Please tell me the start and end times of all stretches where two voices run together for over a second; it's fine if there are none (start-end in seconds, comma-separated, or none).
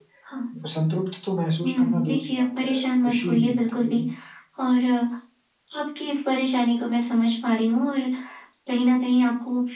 1.6-4.0